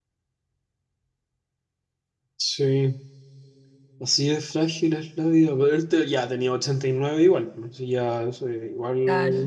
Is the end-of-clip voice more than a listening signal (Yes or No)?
Yes